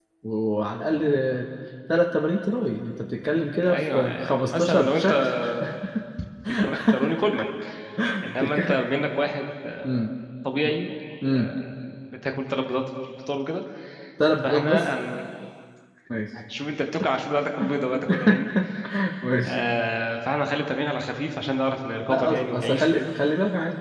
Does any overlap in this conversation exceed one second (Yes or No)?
Yes